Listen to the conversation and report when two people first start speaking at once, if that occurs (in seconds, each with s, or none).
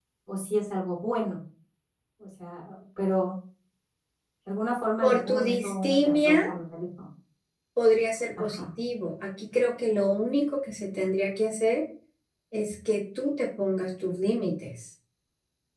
5.0 s